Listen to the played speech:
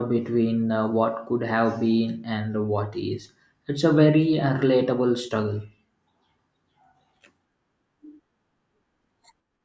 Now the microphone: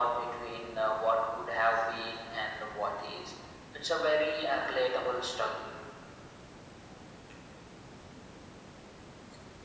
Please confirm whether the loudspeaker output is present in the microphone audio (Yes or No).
Yes